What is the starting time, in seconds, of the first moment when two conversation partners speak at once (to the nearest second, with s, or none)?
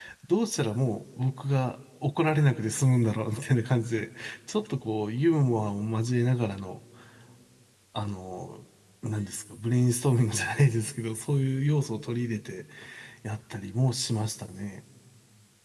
none